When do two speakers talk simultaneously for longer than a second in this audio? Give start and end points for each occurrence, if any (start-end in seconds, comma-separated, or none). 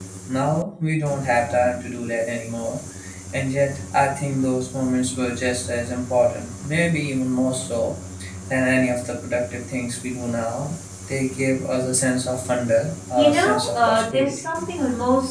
13.2-14.5